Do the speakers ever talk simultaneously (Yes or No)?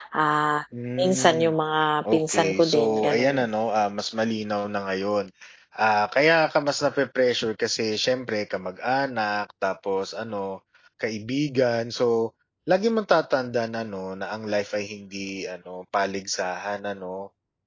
Yes